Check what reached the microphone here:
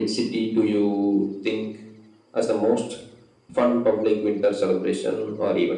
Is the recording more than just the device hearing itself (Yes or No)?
No